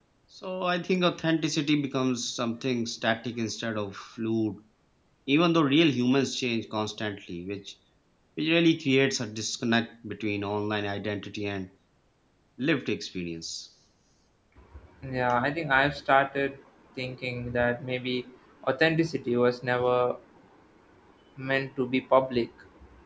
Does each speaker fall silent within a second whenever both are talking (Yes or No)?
Yes